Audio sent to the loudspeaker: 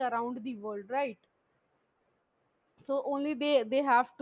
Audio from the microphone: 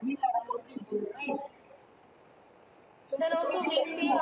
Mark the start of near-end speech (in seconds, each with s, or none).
3.2 s